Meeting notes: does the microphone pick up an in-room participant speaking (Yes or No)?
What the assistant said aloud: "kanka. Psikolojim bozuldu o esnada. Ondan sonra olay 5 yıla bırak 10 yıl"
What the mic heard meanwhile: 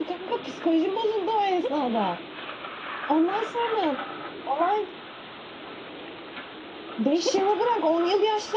No